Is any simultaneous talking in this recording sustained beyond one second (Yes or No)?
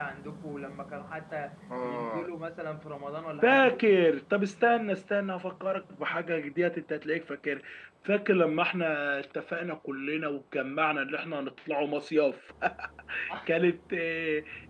No